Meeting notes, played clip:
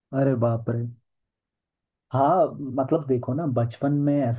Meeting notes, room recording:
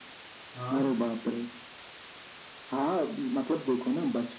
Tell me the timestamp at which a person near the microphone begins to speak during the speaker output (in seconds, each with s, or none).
0.5 s